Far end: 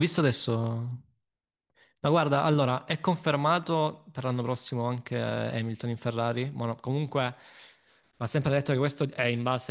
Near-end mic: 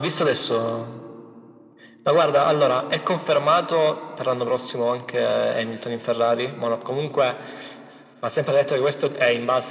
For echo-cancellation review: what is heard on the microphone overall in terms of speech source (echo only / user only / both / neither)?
echo only